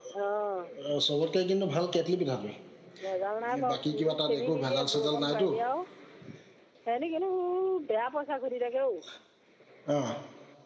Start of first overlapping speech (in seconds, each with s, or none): 3.7 s